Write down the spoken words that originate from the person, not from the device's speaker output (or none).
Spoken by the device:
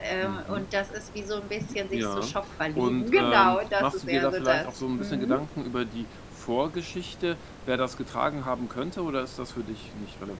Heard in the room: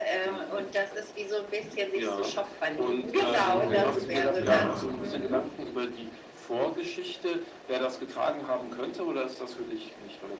okay, ja,